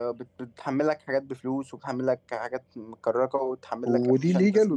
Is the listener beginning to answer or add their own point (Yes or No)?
Yes